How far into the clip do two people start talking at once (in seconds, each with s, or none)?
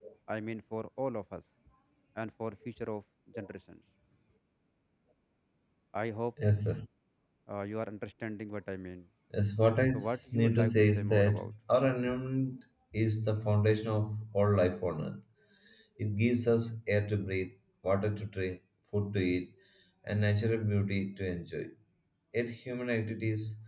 9.9 s